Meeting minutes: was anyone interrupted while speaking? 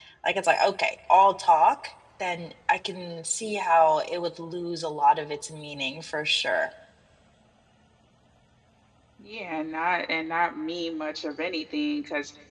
No

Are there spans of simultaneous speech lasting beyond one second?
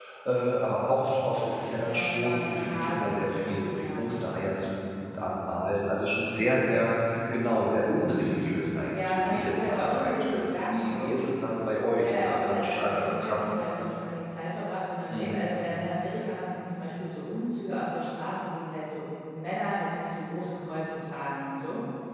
Yes, from 1.8 s

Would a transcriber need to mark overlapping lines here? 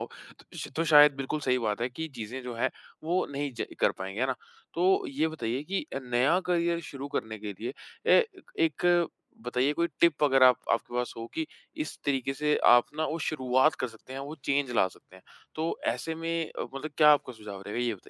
No

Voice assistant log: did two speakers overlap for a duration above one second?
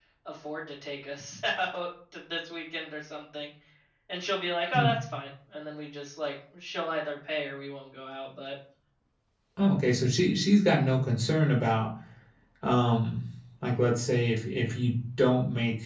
No

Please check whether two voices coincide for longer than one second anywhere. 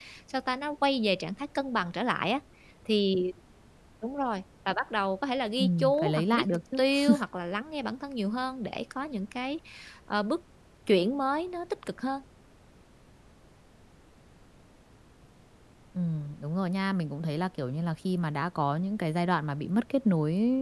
Yes, from 5.6 s

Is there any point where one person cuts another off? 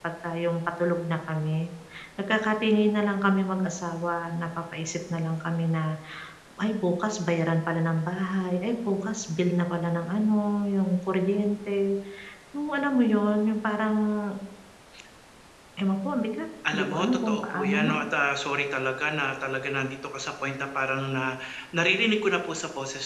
Yes, from 16.6 s

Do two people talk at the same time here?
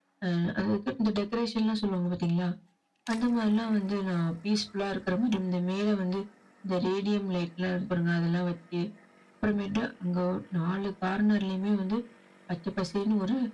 No

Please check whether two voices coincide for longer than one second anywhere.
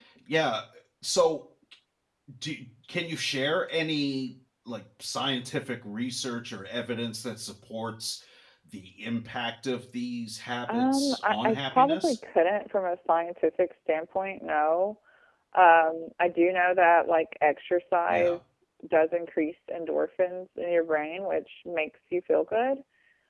Yes, from 10.7 s

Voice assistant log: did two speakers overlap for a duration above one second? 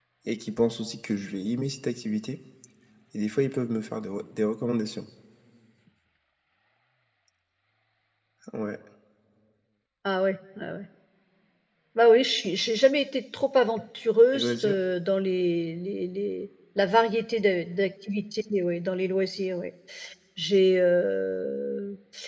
No

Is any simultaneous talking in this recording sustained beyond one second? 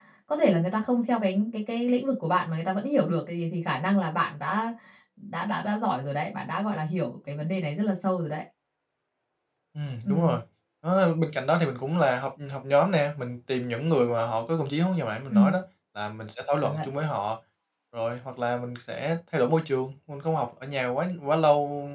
No

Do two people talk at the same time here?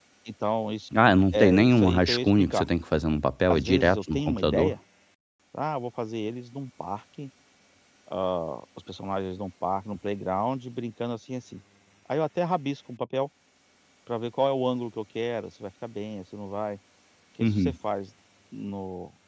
Yes, from 1.3 s

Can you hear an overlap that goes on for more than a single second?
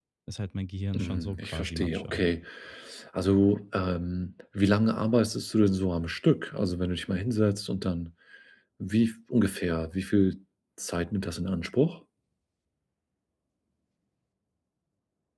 Yes, from 0.9 s

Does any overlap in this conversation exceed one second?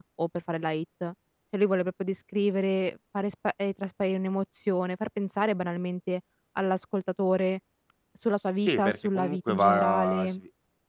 Yes, from 8.6 s

